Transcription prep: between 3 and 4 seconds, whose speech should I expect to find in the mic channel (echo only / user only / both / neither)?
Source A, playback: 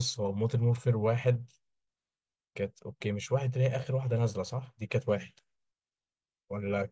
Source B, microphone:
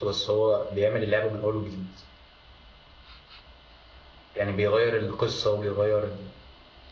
neither